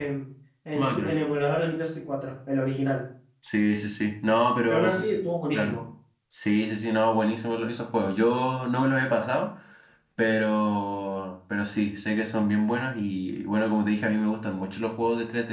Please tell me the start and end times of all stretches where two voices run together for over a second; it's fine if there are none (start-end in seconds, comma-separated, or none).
none